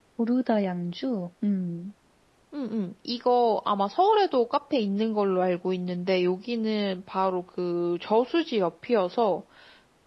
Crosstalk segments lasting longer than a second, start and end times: none

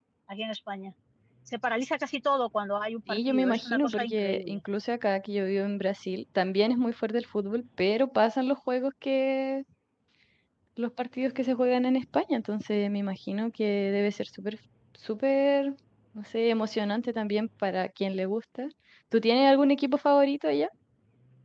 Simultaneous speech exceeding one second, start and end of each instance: 3.1-4.6

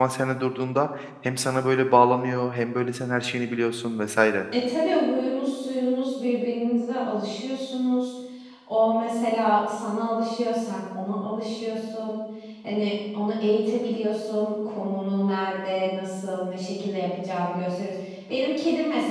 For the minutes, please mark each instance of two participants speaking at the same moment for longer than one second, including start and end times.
none

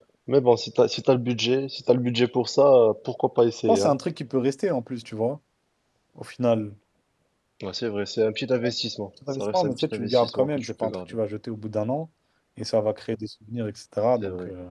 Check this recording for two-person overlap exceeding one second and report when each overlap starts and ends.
9.3-10.9

